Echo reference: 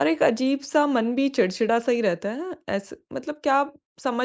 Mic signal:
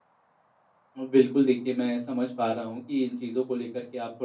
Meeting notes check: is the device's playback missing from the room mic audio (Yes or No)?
Yes